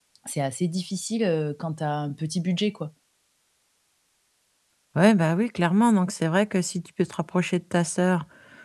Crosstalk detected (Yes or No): No